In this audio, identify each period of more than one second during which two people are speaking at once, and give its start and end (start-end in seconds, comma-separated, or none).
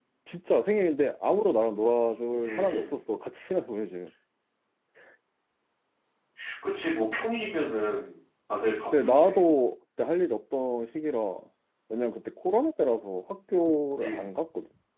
none